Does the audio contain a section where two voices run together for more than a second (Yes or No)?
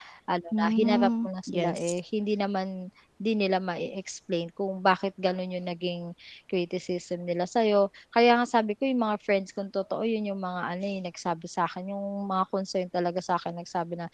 Yes